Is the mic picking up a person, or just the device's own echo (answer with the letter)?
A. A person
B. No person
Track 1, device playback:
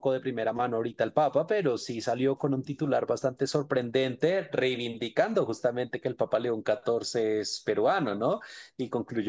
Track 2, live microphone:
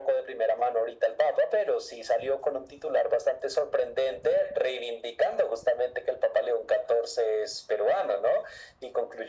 B